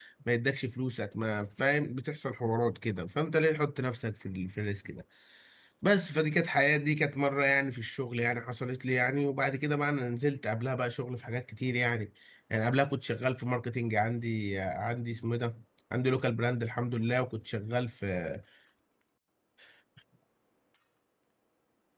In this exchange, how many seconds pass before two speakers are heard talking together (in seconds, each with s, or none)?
none